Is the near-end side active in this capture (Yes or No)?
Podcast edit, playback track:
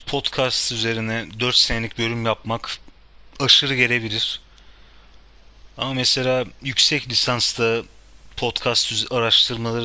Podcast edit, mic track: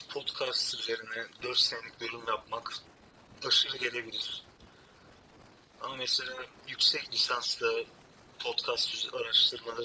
No